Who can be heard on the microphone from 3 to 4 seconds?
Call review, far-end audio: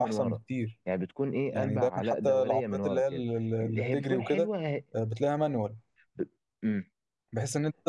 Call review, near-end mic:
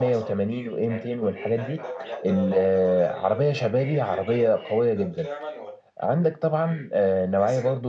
both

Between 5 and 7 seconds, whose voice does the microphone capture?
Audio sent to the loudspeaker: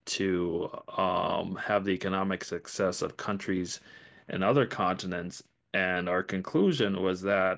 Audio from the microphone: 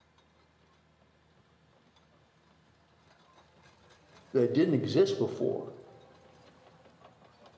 user only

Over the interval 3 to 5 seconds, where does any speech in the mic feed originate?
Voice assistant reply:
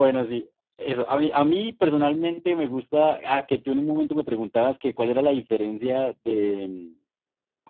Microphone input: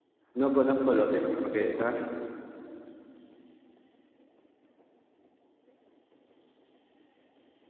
neither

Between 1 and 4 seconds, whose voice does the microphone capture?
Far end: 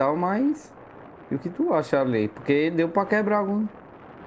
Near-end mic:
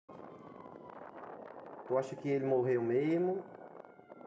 user only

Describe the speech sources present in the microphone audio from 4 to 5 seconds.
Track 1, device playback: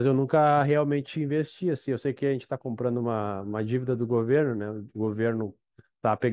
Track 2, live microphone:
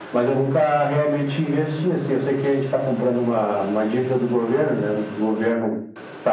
echo only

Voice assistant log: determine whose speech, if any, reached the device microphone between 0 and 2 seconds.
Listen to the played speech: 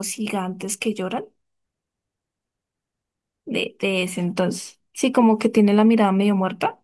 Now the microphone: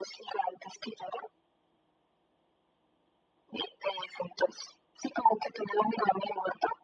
echo only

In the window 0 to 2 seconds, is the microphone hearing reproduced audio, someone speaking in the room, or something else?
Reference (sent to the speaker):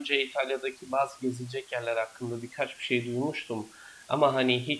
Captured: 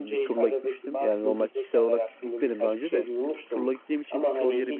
both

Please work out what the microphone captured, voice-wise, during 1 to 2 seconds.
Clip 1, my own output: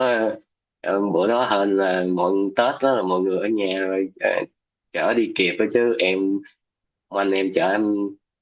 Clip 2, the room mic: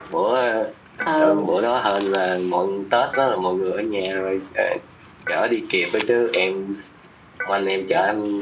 both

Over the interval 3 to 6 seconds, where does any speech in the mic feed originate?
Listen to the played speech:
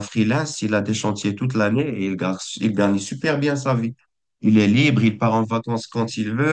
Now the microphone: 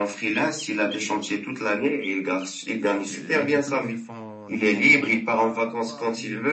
both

